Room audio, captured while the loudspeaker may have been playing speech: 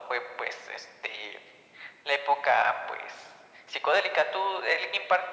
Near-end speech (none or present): none